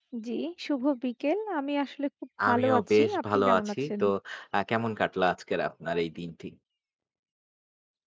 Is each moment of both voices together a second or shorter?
No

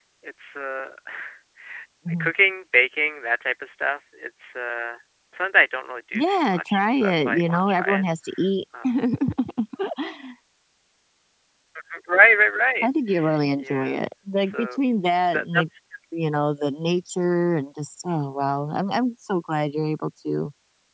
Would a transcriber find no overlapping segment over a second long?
No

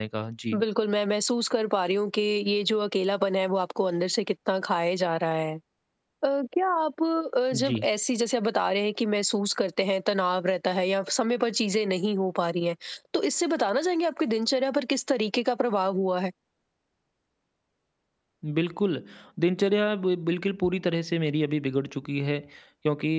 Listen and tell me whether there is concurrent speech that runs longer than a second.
No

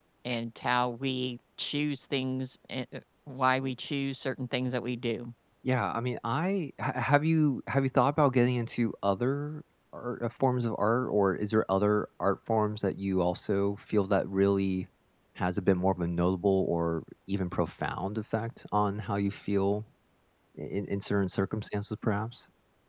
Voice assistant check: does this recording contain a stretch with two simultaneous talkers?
No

